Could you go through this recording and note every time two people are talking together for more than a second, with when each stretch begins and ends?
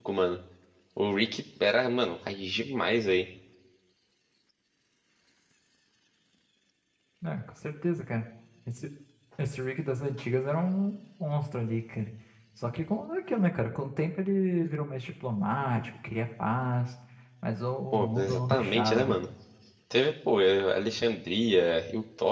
17.9-19.3

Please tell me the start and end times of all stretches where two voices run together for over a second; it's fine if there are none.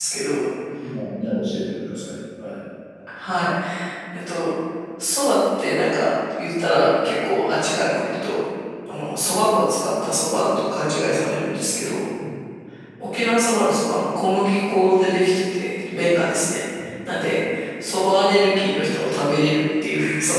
none

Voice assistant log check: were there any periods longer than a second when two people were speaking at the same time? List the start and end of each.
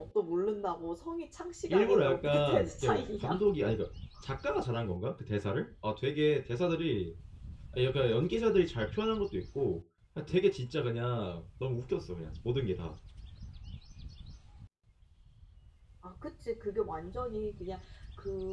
1.7-3.8

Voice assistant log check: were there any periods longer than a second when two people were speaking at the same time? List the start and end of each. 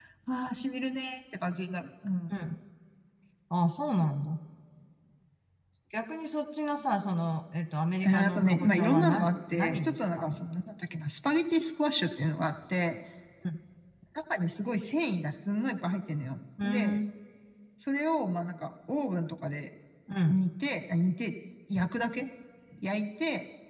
8.1-10.4

